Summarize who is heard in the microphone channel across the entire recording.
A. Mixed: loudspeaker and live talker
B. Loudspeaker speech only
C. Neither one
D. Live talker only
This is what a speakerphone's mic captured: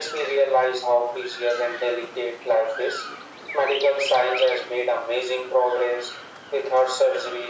B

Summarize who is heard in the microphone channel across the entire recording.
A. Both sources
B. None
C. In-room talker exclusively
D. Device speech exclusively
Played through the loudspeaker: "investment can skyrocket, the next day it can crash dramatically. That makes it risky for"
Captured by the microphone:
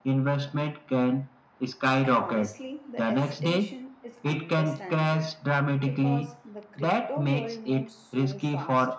A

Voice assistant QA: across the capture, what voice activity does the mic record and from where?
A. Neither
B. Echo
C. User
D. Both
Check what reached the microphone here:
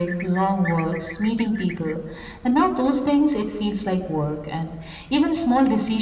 B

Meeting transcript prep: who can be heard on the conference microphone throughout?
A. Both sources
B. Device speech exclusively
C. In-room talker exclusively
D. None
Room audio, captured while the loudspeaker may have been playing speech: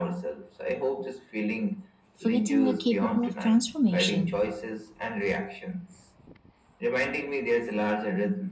A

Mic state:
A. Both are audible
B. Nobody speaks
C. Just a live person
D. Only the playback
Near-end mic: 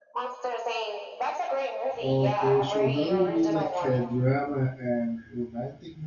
A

